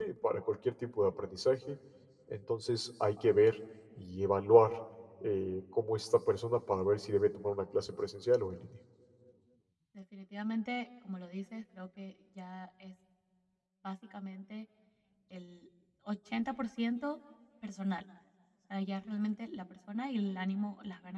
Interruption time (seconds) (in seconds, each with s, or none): none